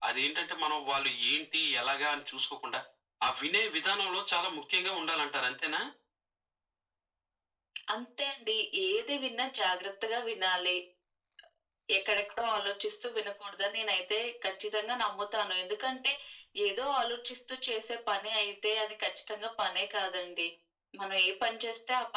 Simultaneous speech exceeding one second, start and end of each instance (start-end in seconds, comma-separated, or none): none